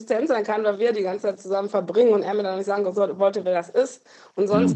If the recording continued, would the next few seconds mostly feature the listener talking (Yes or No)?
No